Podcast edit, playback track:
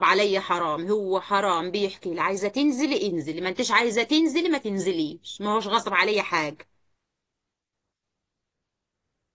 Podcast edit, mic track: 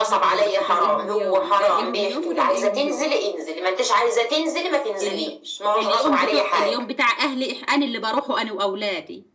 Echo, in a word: present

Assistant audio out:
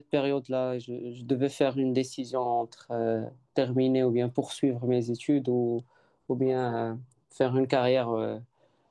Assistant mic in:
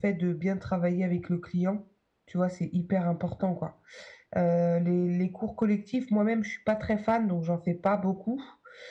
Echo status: none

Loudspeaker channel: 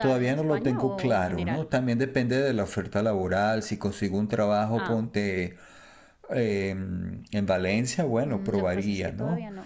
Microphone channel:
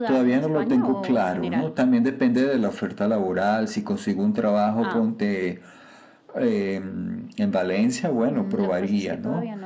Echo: present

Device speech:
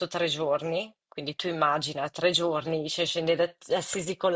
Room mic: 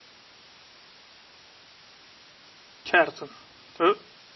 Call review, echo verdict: none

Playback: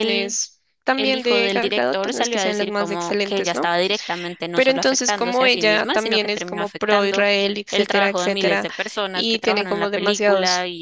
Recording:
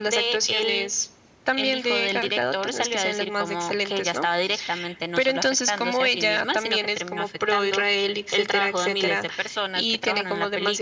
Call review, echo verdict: present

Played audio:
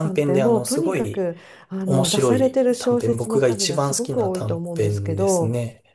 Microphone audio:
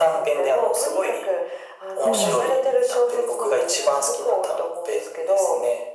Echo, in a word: present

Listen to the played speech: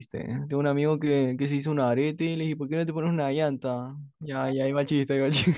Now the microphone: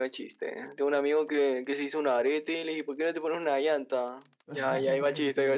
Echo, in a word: present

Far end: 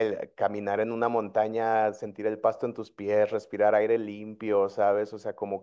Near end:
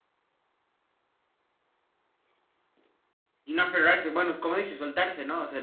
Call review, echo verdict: none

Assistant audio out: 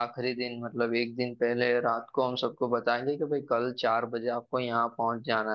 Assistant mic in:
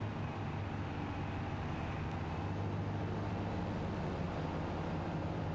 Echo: none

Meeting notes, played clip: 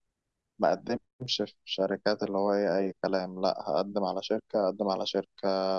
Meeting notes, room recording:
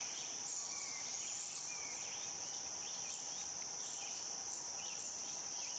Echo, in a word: none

